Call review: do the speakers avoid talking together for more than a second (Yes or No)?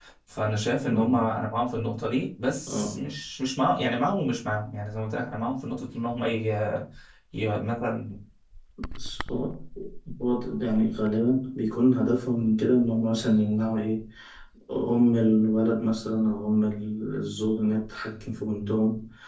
Yes